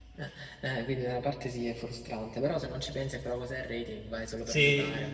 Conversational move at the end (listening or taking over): taking over